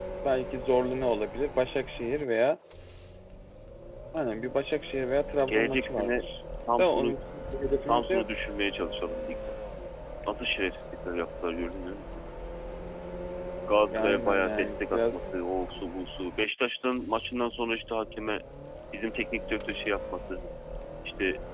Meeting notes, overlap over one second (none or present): present